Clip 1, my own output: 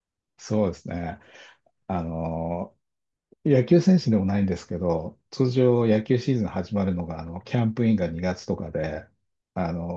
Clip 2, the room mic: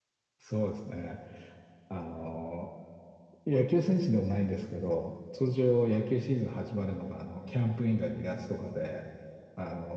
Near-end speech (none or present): none